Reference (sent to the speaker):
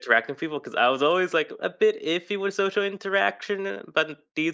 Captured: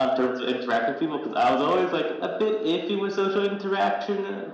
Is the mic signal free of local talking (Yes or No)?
Yes